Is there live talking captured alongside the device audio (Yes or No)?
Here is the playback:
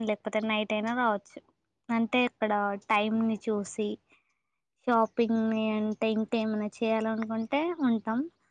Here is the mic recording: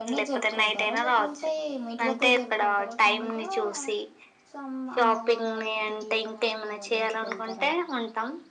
Yes